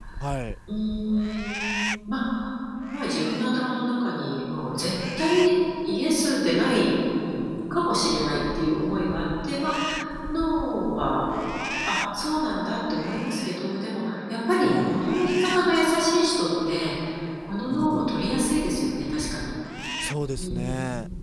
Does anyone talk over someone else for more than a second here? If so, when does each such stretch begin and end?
none

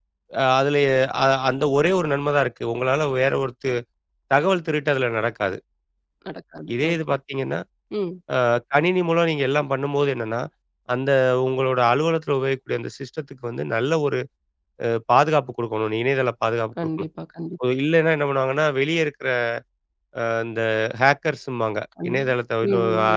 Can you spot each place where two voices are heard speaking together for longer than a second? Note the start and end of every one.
none

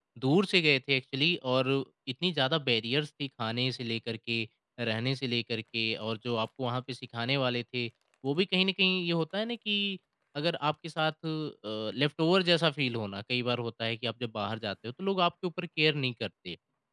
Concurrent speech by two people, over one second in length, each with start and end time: none

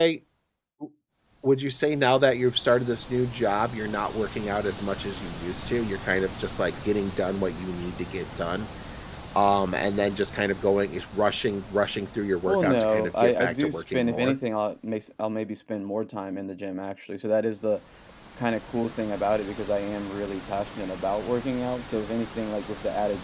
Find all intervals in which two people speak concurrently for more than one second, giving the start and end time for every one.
12.5-14.4

